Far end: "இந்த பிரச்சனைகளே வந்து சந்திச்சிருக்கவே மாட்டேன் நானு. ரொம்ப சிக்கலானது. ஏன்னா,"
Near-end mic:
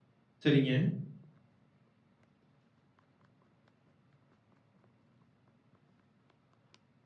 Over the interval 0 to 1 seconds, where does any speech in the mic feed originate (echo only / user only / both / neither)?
user only